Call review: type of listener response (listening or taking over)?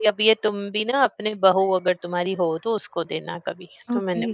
taking over